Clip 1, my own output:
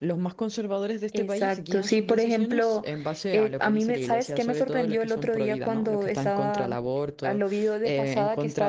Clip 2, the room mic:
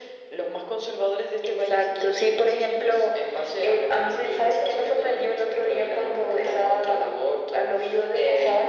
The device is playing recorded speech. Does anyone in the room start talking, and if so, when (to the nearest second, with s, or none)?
none